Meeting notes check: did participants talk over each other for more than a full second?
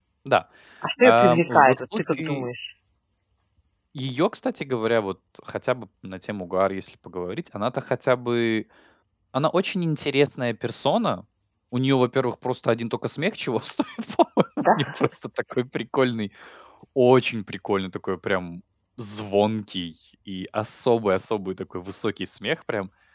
Yes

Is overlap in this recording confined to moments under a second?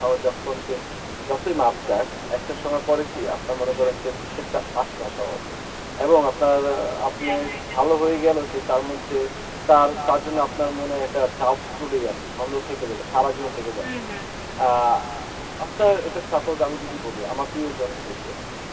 Yes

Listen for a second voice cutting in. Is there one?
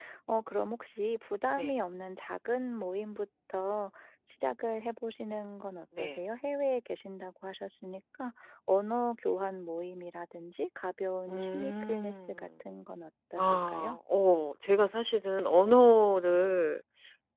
Yes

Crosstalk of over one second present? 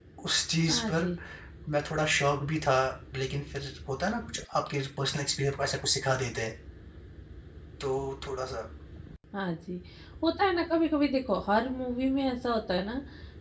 No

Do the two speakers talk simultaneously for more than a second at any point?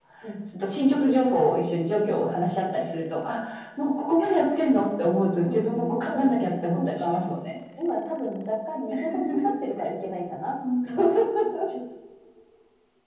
Yes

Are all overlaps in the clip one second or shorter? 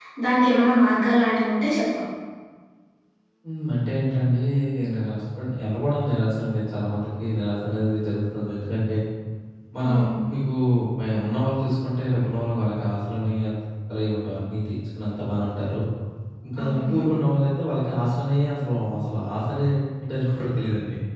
Yes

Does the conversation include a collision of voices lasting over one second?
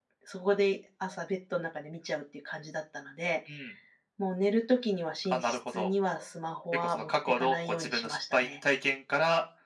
Yes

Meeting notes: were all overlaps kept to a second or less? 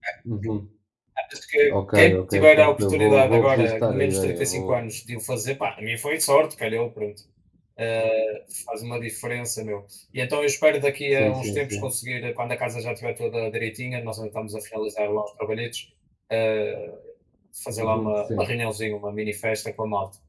No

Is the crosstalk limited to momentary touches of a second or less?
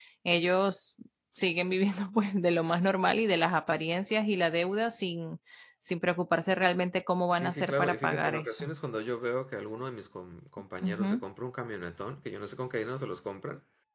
No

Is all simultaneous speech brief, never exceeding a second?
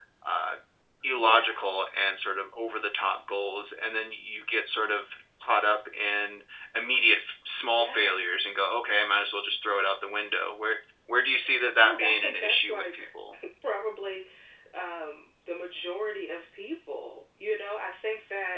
No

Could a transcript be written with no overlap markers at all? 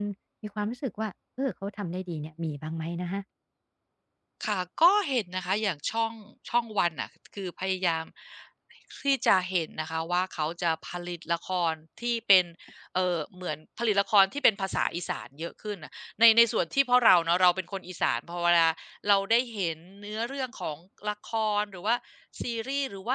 Yes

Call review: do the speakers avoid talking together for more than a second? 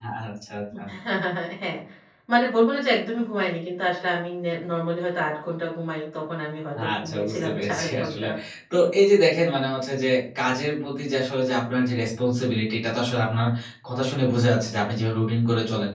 No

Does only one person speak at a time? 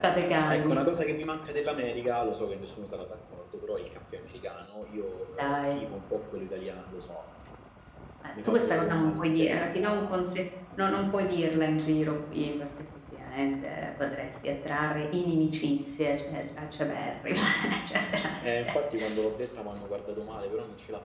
No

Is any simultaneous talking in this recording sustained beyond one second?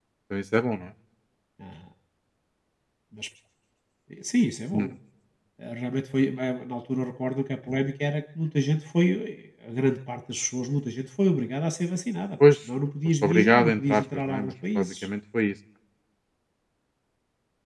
Yes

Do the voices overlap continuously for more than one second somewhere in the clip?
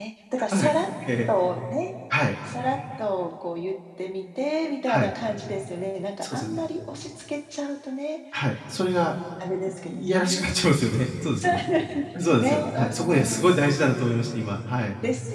Yes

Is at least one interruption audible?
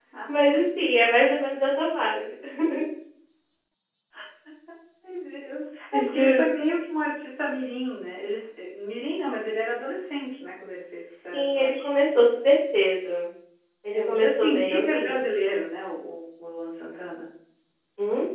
Yes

